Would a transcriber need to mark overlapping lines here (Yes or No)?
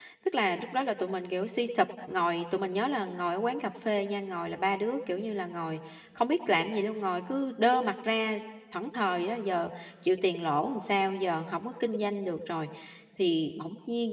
No